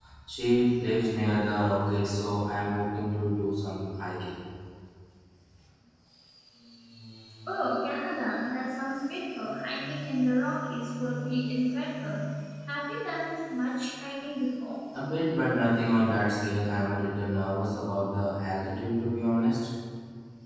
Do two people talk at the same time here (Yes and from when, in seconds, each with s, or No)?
No